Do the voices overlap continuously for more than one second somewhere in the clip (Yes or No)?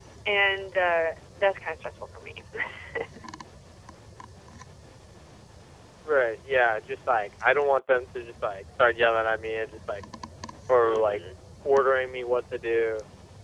No